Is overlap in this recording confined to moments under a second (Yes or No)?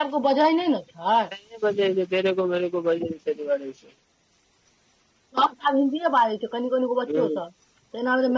Yes